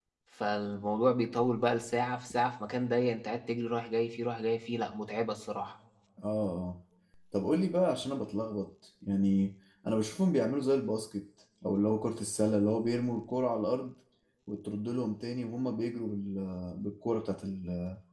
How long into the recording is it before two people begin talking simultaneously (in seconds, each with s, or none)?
none